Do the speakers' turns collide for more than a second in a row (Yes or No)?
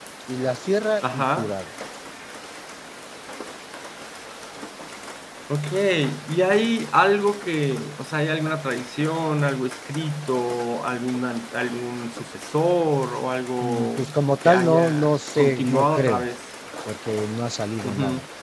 Yes